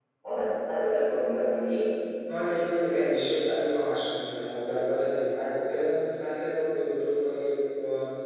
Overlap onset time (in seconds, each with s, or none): none